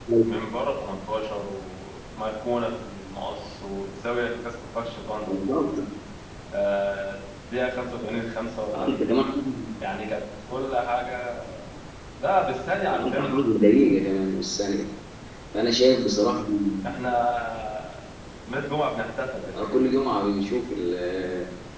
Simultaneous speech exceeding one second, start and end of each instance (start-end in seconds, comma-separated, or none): none